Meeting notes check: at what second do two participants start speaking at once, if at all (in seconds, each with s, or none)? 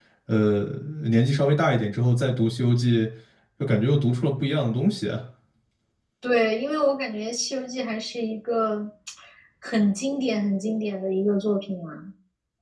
none